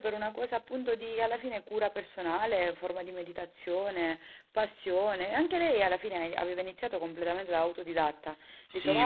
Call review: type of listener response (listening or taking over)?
taking over